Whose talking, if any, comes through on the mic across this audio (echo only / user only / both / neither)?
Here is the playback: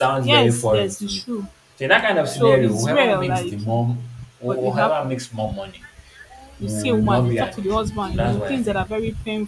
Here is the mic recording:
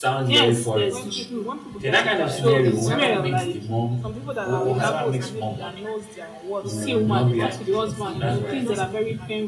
both